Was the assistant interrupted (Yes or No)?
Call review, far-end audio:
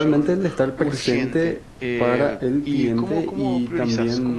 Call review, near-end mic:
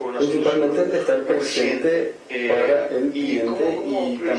No